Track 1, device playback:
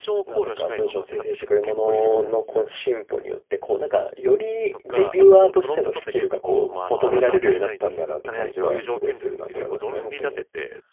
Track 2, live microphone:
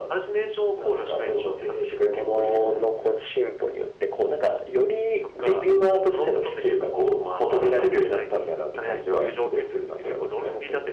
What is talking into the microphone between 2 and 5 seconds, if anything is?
echo only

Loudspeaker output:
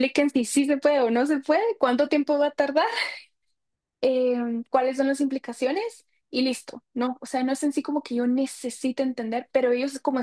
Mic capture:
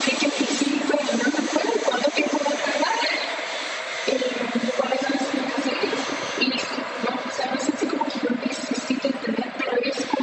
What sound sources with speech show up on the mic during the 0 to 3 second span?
echo only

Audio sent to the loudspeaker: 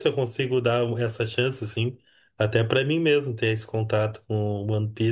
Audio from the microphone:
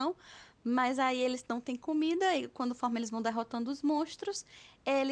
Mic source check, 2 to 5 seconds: user only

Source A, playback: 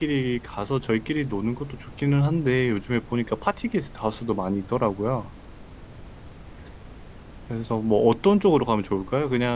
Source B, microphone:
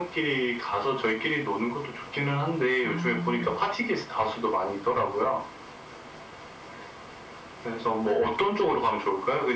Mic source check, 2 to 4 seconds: both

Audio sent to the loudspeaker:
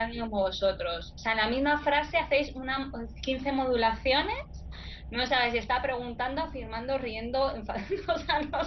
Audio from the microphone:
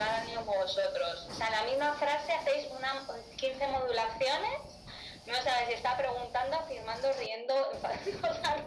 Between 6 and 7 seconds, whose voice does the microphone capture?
echo only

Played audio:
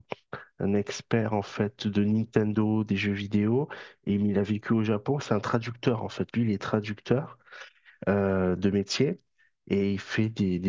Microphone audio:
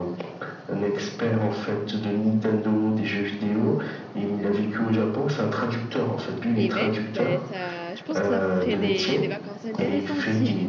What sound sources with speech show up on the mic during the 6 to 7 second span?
both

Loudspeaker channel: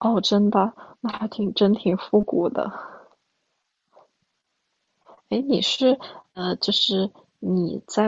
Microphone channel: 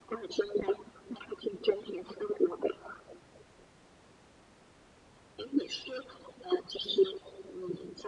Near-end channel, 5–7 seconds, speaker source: echo only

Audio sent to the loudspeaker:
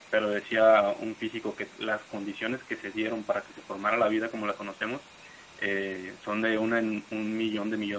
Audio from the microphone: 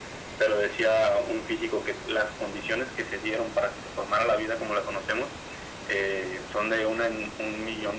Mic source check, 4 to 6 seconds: echo only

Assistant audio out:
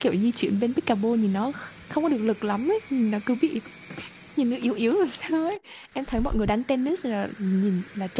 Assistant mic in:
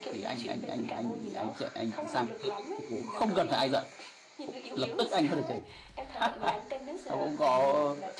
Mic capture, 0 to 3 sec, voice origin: both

